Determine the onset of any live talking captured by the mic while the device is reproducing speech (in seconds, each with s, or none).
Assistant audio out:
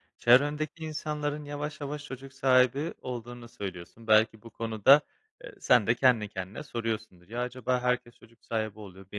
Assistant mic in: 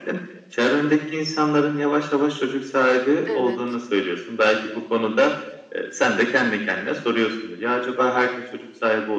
3.2 s